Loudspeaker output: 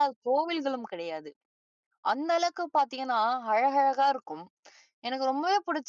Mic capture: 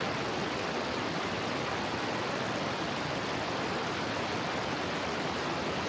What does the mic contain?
neither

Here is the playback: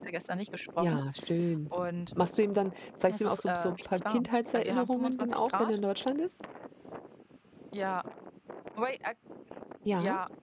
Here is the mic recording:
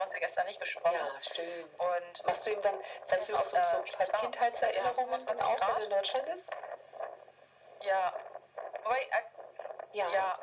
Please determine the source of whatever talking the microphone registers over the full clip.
echo only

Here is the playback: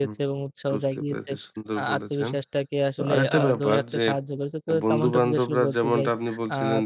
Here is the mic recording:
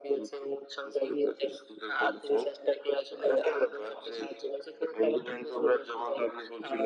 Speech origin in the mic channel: echo only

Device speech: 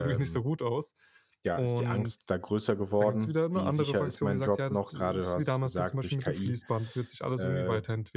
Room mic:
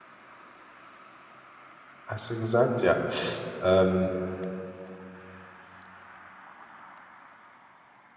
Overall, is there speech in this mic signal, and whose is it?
user only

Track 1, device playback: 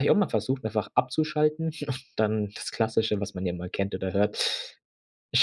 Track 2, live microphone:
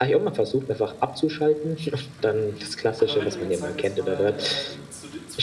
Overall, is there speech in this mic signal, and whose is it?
both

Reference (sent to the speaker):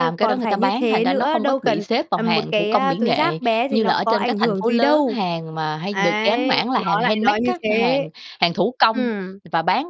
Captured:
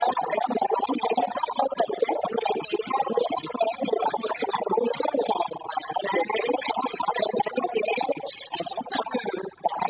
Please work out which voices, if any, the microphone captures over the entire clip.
echo only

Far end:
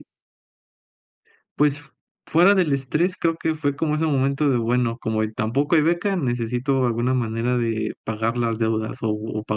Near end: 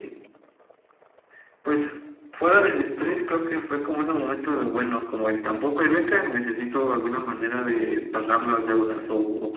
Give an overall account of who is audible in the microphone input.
echo only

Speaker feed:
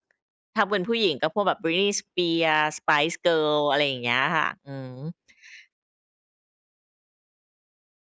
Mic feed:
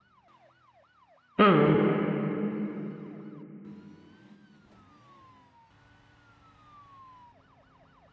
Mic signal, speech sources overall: user only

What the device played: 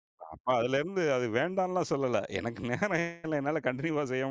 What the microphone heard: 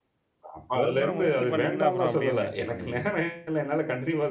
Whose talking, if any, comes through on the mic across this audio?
both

